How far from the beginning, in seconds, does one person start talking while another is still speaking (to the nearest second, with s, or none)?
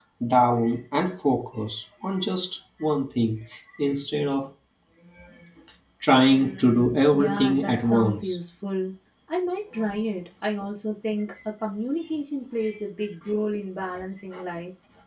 7 s